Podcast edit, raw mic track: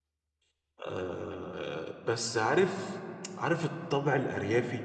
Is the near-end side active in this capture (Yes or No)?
Yes